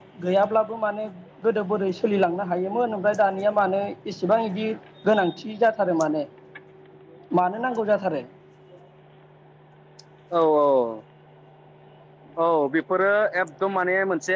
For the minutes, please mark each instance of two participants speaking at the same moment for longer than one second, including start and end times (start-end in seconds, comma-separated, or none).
none